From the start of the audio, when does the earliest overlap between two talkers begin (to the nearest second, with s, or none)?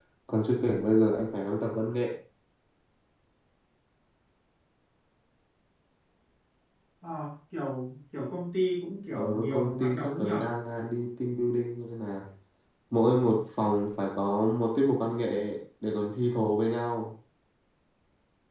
9 s